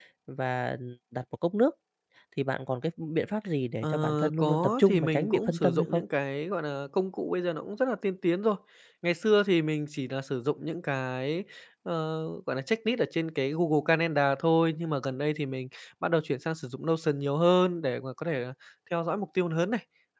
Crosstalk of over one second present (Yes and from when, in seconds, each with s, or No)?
Yes, from 3.8 s